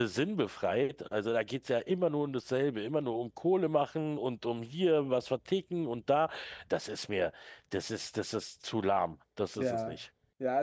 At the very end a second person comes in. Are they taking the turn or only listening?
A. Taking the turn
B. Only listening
A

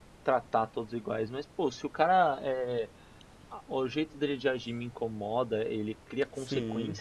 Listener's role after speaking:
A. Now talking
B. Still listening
B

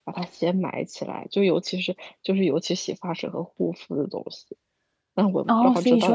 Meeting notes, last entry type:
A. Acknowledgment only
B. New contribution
B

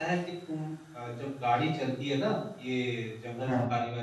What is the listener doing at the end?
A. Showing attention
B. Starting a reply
A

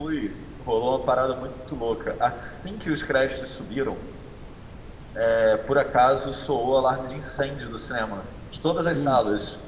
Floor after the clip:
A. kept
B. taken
A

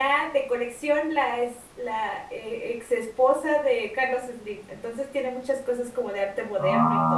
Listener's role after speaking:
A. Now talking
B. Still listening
A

